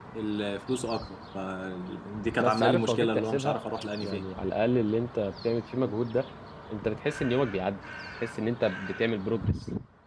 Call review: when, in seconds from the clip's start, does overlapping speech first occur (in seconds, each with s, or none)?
2.4 s